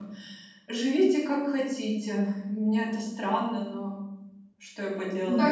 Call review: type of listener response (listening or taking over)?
taking over